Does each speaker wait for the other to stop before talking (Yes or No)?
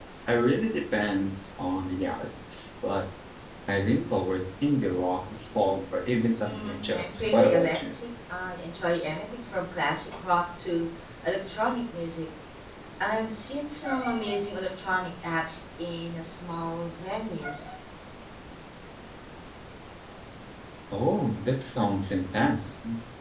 No